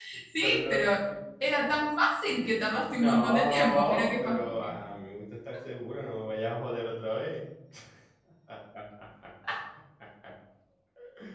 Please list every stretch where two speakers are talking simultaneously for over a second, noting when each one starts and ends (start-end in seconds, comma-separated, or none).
2.9-4.4